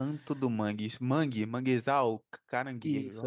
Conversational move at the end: taking over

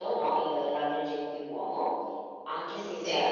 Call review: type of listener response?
listening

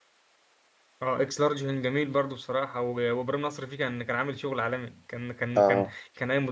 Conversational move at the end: listening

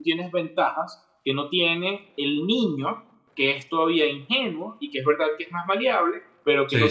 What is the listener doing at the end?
listening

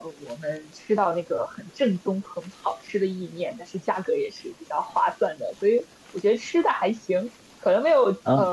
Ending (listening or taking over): listening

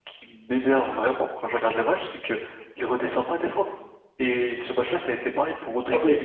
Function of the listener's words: listening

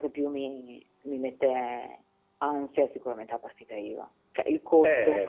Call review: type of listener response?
taking over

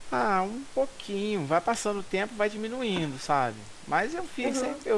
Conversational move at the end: listening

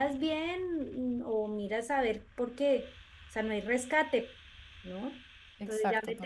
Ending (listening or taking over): listening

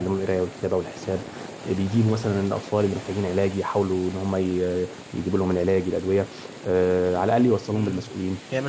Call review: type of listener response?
taking over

